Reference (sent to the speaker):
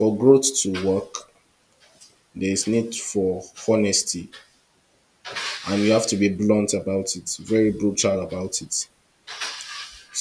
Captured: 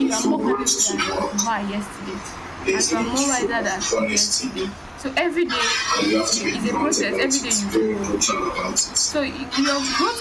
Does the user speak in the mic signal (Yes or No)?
Yes